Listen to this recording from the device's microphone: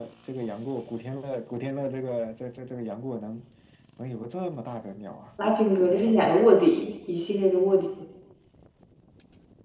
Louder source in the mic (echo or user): user